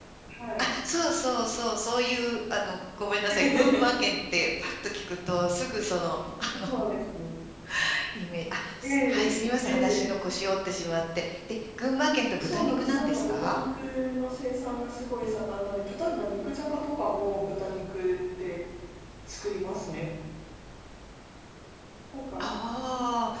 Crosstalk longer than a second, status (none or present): present